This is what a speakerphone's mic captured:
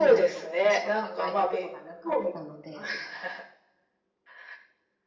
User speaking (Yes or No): Yes